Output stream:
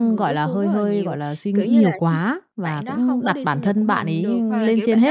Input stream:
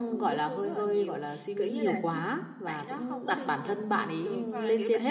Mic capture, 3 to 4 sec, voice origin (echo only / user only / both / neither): echo only